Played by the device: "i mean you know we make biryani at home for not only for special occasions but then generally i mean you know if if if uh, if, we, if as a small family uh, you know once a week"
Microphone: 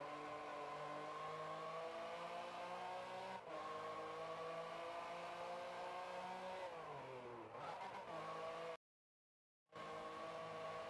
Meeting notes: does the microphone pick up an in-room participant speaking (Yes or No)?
No